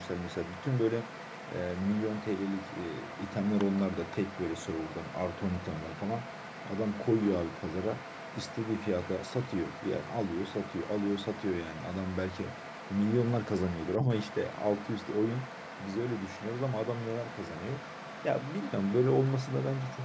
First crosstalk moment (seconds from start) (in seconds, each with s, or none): none